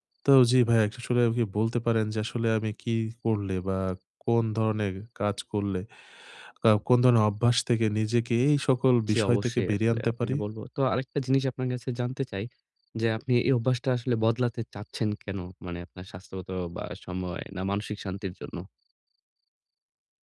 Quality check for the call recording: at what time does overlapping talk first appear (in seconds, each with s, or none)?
9.1 s